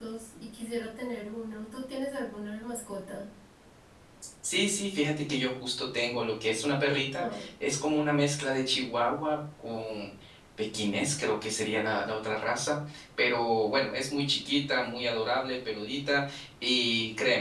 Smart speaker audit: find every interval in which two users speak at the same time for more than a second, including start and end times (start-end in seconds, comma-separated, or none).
none